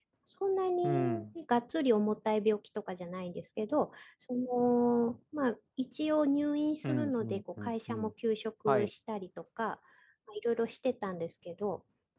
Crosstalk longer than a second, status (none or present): present